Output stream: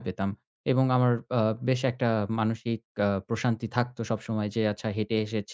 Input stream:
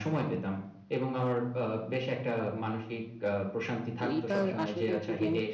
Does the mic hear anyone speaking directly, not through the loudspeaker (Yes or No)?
Yes